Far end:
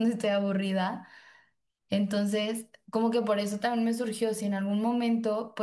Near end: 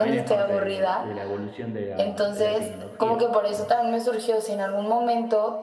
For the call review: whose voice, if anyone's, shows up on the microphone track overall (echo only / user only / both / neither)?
both